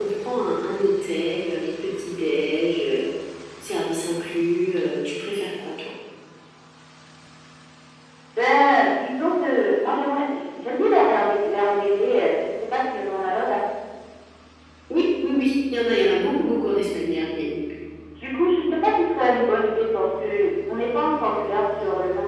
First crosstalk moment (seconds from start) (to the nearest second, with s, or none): none